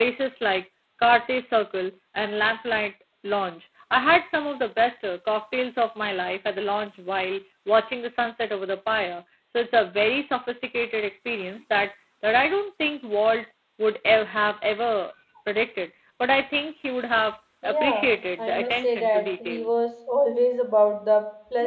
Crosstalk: present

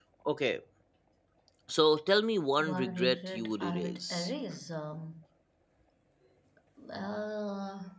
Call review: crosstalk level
present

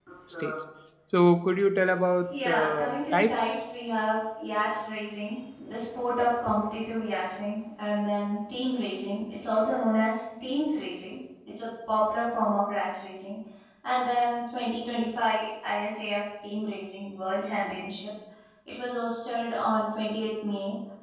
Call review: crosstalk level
present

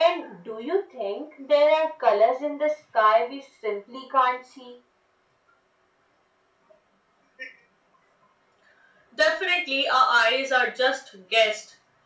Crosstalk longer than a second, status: none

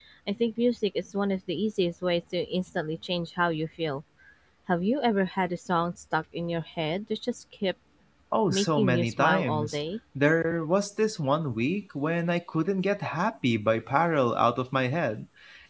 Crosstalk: present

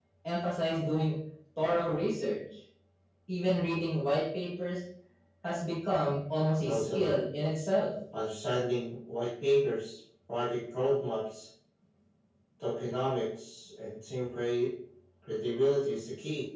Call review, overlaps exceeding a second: none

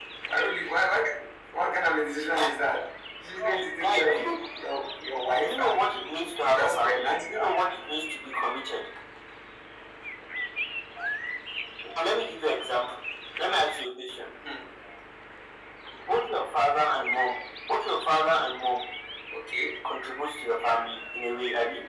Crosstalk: present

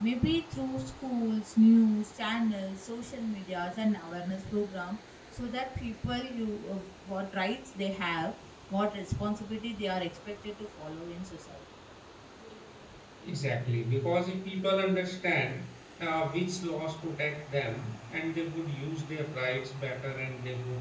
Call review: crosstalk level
none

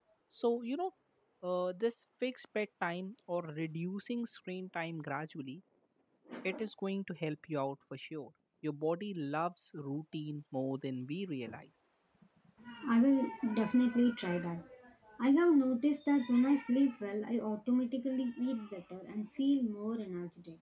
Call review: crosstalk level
none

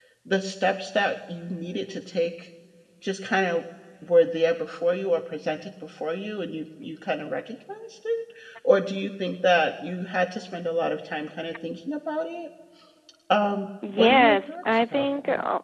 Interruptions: present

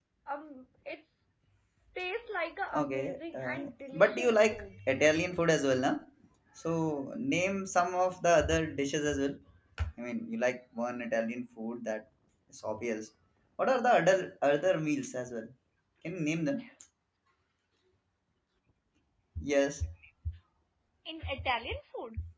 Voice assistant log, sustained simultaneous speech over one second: present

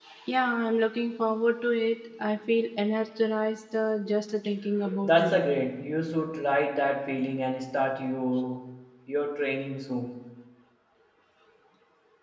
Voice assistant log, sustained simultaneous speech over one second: none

